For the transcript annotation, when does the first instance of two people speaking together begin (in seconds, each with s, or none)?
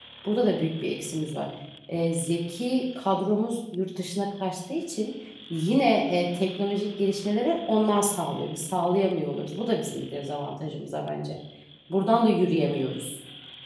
none